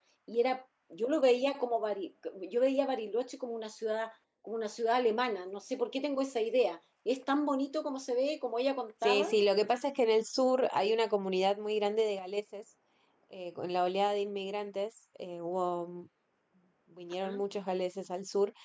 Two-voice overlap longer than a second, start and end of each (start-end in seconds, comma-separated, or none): none